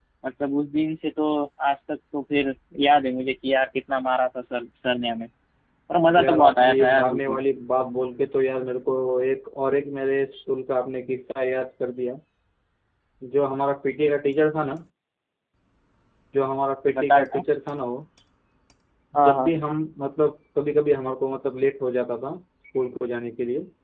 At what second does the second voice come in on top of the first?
6.2 s

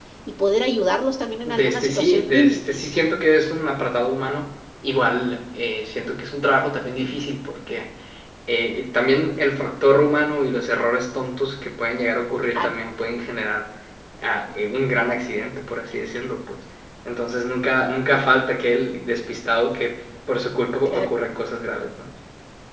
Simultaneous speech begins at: 1.4 s

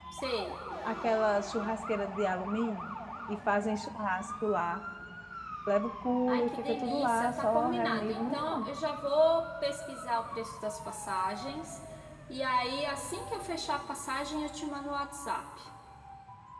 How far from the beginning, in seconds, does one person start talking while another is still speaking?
6.3 s

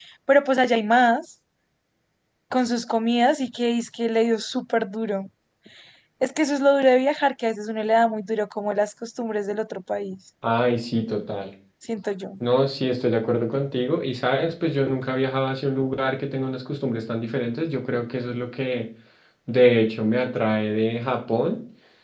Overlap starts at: none

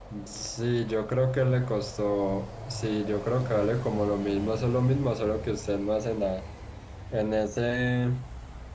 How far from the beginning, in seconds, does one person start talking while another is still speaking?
none

